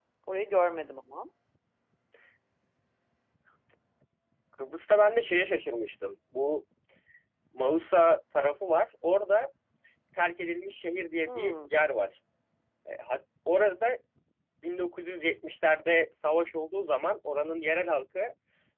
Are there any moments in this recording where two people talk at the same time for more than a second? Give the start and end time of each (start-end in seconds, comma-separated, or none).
none